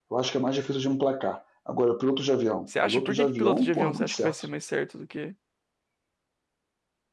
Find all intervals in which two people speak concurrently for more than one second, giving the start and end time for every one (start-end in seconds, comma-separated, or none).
2.9-4.4